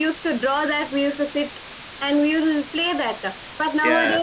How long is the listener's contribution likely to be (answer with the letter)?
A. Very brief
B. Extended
A